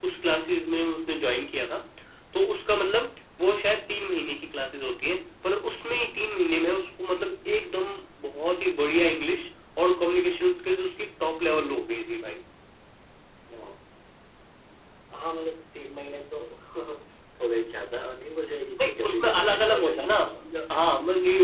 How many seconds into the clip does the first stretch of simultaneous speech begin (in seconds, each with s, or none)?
18.8 s